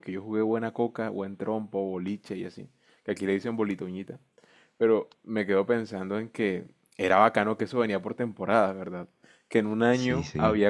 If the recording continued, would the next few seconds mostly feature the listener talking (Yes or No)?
No